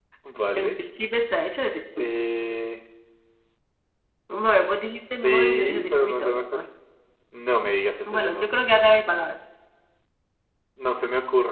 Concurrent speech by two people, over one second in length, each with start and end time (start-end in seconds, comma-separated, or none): 5.2-6.6